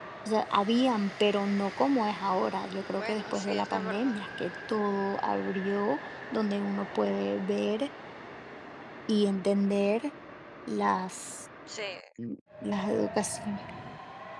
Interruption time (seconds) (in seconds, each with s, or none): 2.9 s